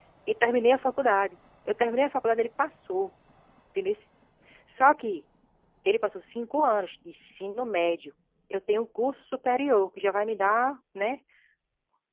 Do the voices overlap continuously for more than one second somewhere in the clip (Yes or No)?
No